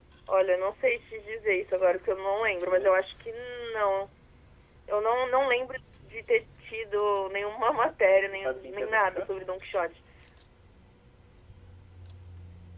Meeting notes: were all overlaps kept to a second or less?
No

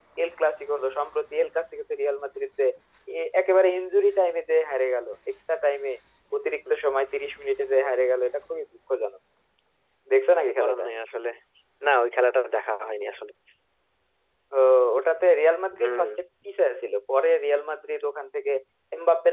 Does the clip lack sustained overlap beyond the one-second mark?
Yes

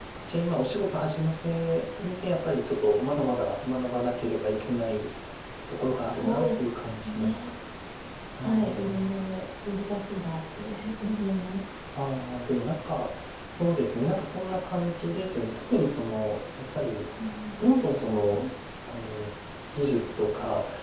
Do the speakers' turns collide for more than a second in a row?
Yes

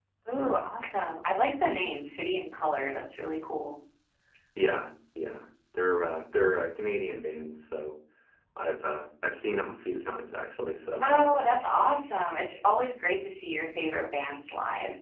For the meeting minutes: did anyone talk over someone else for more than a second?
No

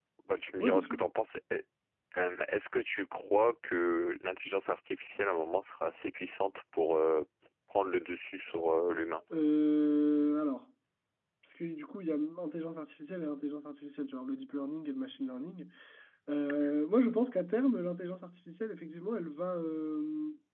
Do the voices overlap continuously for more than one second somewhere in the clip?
No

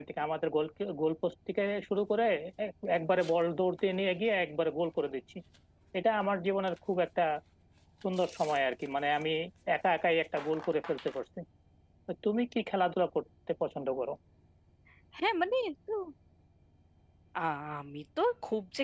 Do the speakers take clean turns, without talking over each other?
Yes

